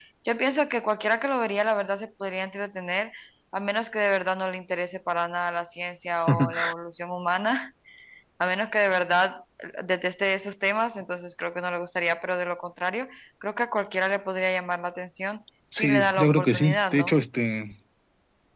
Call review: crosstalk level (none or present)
present